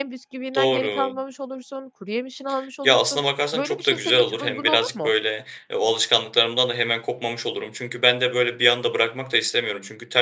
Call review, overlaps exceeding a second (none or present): present